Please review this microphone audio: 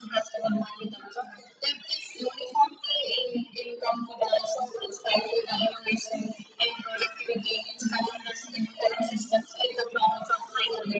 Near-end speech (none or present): none